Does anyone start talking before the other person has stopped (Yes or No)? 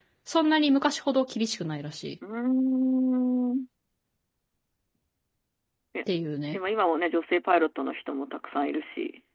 No